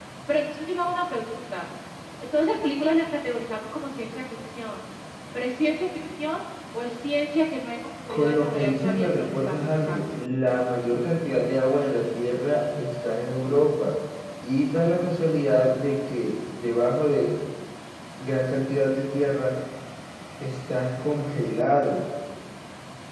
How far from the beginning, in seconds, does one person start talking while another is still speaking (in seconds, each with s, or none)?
8.1 s